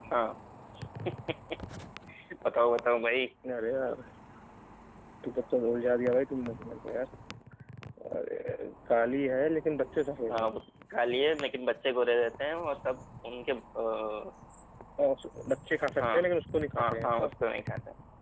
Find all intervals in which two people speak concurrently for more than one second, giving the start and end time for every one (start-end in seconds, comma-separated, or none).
none